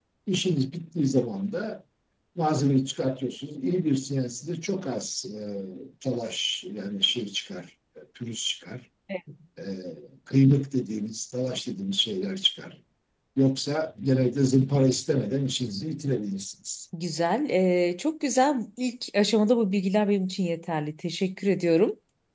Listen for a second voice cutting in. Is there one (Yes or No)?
No